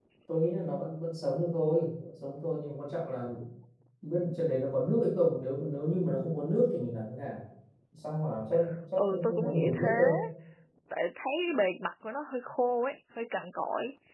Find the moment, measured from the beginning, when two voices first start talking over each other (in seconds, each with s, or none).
9.0 s